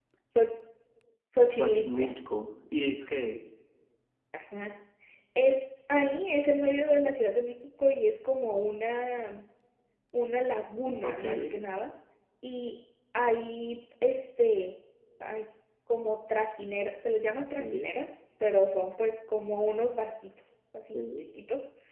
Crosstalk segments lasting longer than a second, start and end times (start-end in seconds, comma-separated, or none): none